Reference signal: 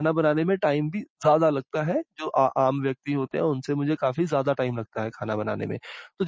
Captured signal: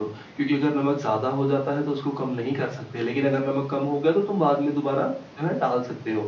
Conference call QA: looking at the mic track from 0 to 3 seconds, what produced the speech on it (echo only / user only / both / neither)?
user only